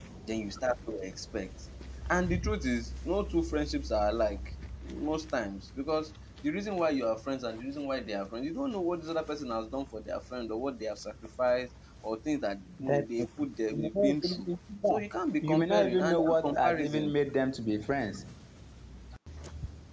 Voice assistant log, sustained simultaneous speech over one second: present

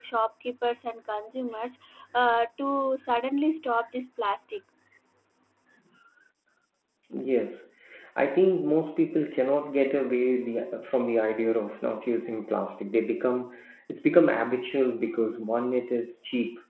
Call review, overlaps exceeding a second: none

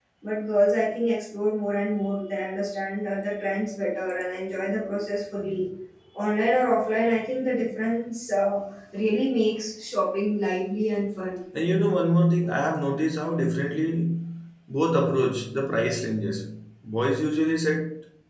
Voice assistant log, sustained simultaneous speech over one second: none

